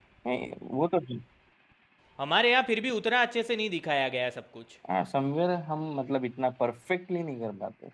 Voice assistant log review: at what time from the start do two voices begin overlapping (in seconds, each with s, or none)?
none